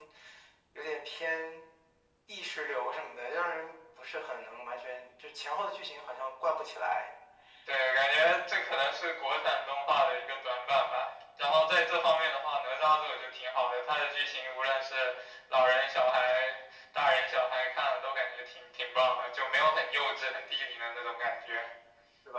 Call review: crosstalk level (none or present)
none